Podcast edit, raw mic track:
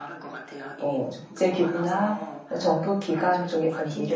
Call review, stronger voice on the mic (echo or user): user